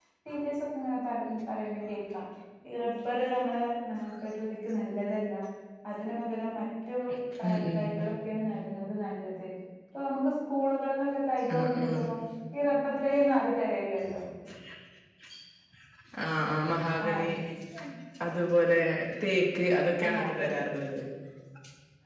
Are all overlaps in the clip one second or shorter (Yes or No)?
Yes